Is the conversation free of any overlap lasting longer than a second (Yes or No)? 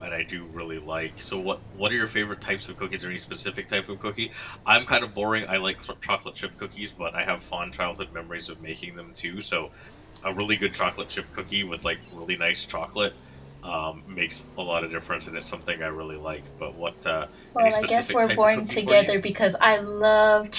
No